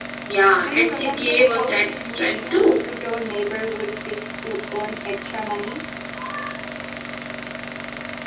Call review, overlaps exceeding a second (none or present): present